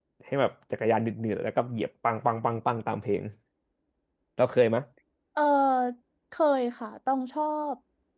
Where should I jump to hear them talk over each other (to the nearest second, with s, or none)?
none